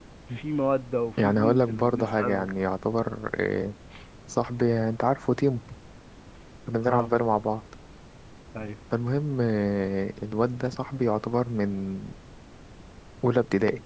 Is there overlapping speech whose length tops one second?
Yes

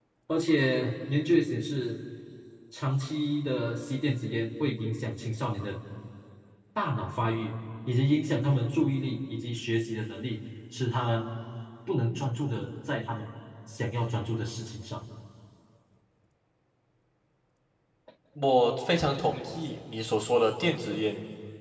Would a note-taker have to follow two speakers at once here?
No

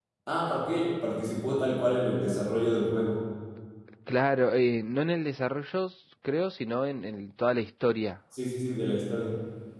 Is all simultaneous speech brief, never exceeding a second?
Yes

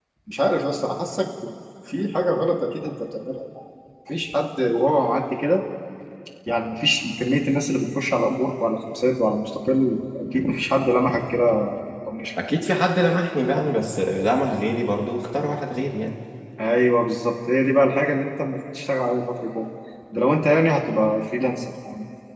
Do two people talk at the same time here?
No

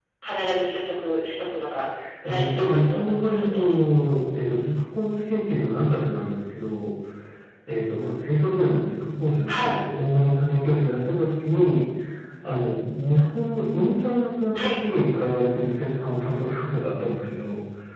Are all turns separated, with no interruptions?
No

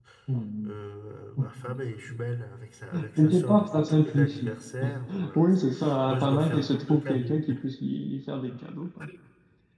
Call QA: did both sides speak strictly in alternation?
No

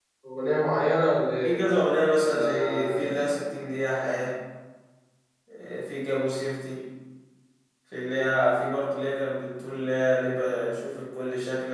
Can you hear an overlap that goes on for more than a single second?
Yes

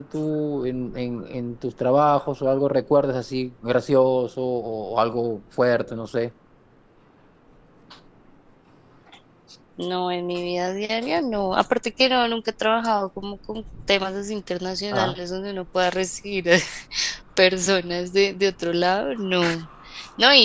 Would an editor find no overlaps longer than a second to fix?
Yes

